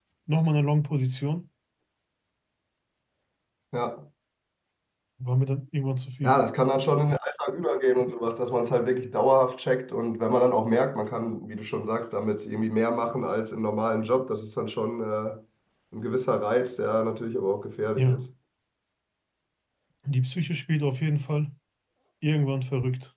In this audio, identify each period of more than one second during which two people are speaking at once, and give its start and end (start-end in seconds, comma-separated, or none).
none